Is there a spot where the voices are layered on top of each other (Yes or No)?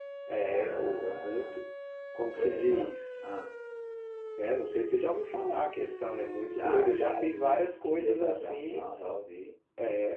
Yes